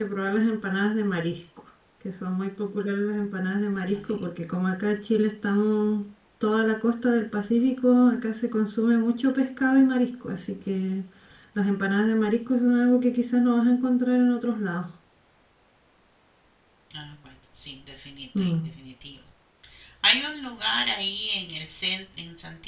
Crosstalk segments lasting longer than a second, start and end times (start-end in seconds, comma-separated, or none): none